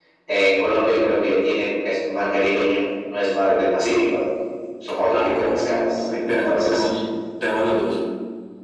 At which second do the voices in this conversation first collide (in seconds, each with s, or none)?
5.1 s